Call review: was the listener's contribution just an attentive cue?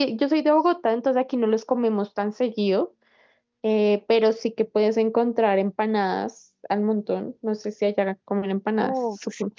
No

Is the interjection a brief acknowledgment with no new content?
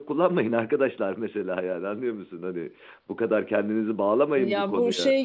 No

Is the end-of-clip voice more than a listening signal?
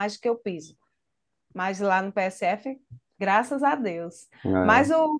No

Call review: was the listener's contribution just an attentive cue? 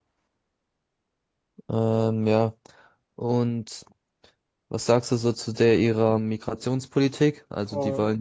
Yes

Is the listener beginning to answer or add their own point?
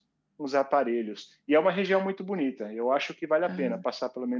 No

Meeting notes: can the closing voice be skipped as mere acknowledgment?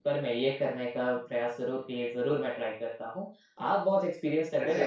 Yes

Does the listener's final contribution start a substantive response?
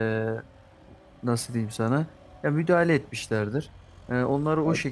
No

